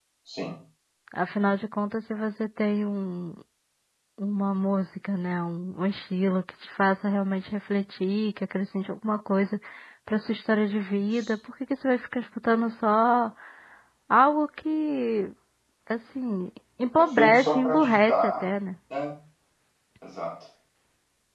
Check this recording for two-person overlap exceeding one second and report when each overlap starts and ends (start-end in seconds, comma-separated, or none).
16.9-18.4